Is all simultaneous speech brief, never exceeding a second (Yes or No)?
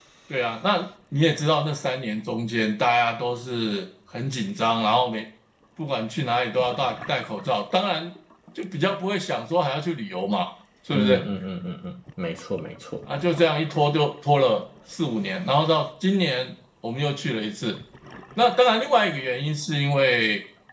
Yes